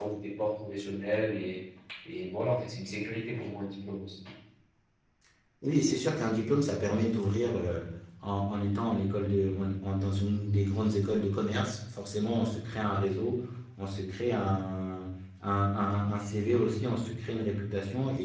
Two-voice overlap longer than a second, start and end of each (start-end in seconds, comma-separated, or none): none